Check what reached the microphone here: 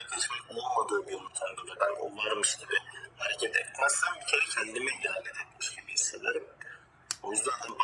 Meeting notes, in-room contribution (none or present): none